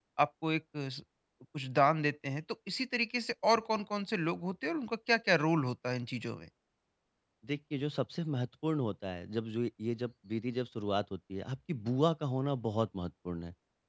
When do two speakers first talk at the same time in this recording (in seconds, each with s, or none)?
none